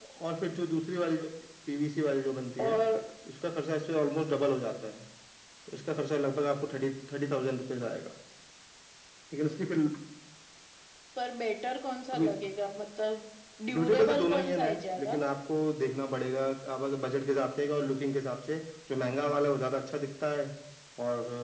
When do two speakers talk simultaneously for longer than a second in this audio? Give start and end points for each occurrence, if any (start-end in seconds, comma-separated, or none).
13.7-15.2